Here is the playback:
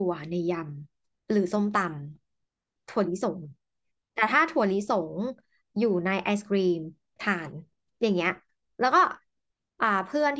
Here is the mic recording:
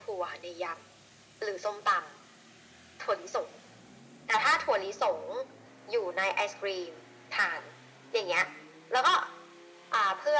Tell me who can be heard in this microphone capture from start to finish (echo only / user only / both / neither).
echo only